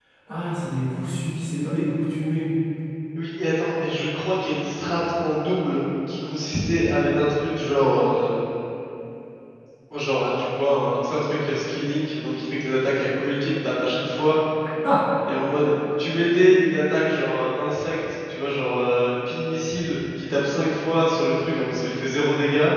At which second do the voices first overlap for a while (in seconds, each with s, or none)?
none